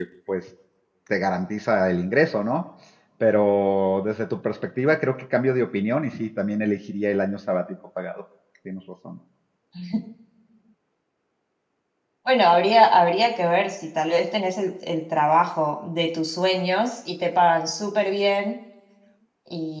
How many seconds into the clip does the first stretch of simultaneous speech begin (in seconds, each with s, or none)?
none